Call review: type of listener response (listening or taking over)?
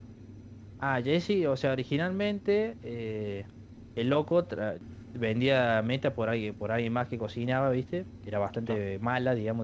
listening